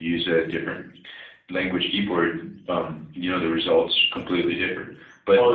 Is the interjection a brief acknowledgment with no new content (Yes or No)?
Yes